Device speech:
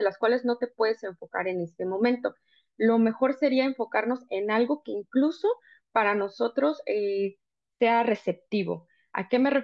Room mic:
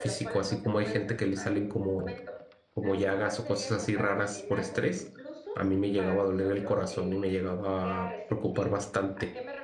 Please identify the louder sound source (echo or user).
user